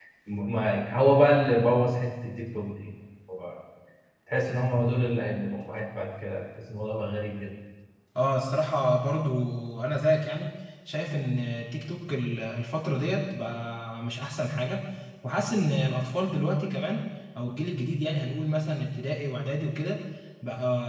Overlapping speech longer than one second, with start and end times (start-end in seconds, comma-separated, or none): none